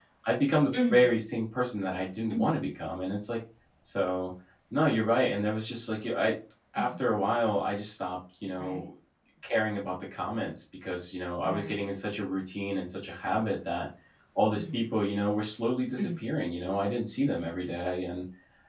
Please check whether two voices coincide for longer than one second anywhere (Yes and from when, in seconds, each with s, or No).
No